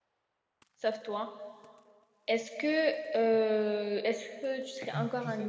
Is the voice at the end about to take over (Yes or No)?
Yes